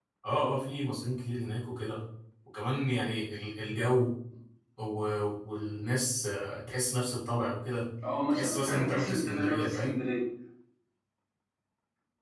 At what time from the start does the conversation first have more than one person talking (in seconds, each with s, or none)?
8.3 s